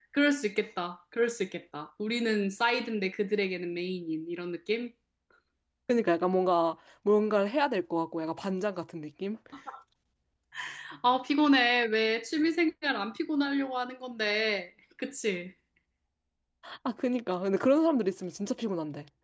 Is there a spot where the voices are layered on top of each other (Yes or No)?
No